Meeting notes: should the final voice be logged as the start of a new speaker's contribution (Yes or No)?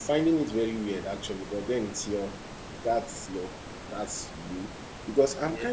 No